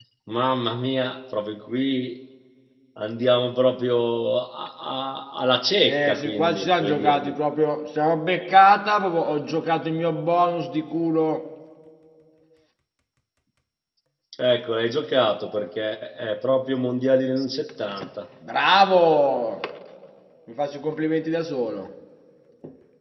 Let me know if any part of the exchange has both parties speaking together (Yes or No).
Yes